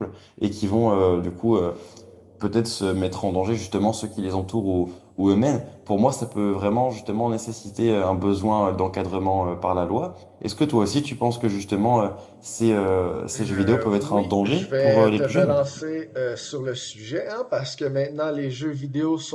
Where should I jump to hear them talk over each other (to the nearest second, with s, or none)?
13 s